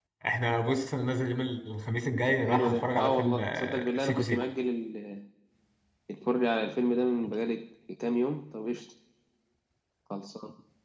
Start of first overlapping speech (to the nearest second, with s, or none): 2 s